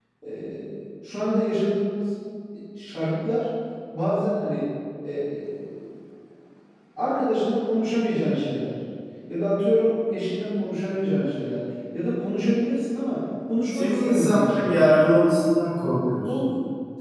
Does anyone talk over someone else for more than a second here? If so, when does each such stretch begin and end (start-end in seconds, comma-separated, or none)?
13.7-15.0